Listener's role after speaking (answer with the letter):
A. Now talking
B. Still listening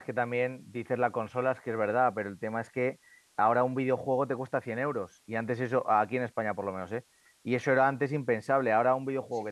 B